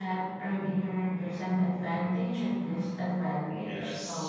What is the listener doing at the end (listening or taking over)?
taking over